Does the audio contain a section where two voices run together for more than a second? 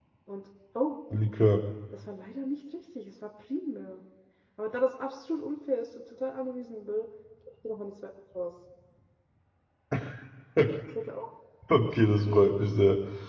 No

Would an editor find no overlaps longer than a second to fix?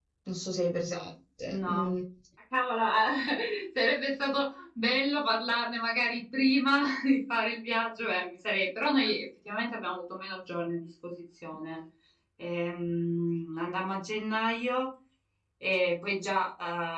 Yes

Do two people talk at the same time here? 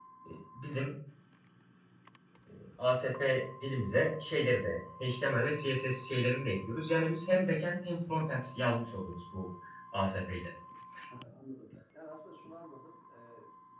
No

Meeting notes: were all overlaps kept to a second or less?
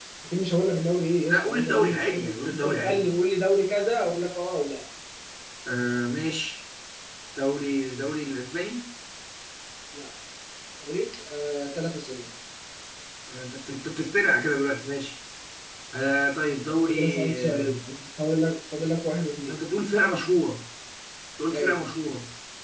No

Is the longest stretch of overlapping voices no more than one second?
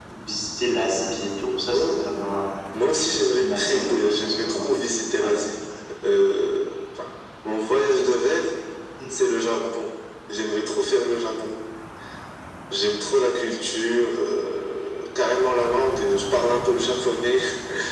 No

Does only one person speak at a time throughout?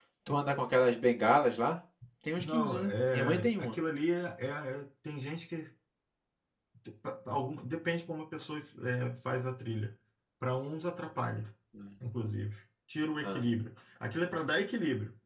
No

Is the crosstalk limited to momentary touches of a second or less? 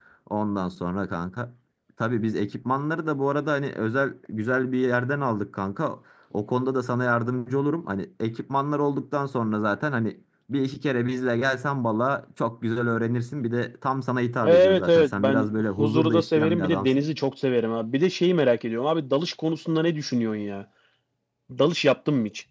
No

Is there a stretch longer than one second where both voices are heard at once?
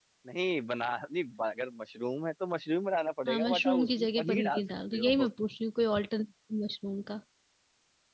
Yes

